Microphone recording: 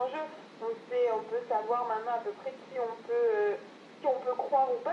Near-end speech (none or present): none